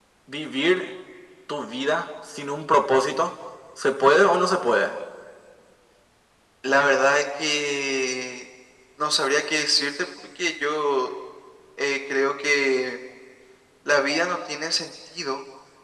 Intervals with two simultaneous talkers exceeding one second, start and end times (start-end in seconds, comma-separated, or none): none